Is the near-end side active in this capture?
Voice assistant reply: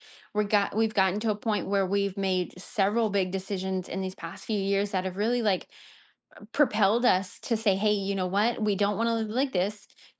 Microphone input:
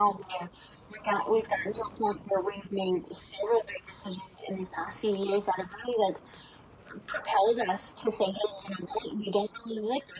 No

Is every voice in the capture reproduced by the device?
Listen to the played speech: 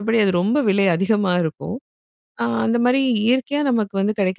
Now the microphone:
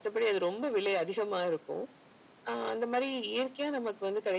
Yes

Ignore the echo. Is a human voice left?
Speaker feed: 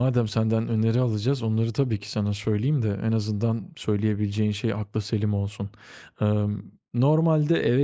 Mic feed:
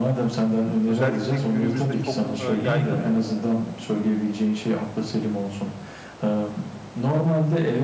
Yes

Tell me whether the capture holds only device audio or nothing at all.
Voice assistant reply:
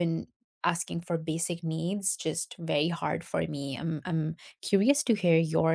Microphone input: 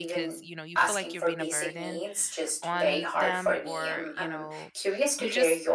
No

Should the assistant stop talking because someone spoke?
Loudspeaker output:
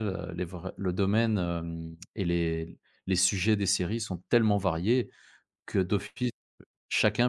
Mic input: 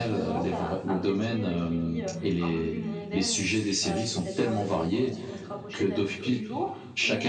Yes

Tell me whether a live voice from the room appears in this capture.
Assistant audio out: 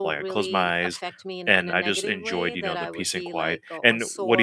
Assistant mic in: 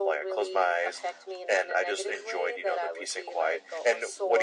No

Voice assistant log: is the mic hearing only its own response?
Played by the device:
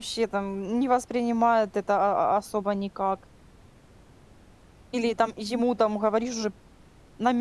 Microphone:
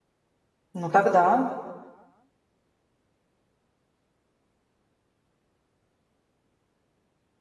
No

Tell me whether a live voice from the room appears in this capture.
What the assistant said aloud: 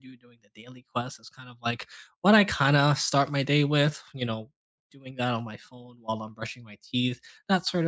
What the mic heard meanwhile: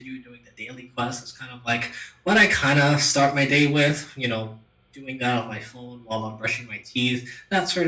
No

